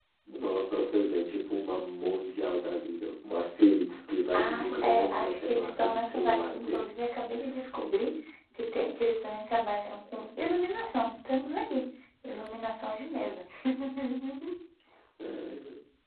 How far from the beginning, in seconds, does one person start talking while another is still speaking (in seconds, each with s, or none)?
4.3 s